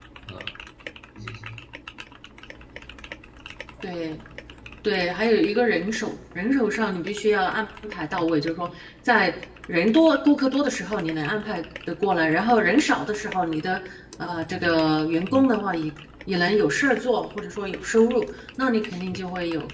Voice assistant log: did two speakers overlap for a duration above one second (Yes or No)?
No